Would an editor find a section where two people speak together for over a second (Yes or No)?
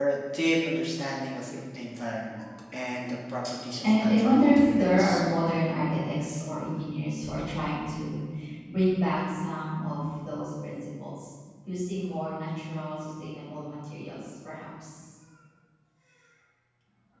Yes